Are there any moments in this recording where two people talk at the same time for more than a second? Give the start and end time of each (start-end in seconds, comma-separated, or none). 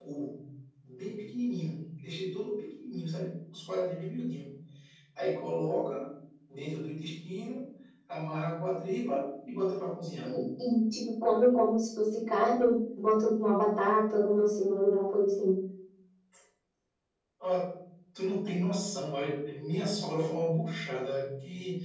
none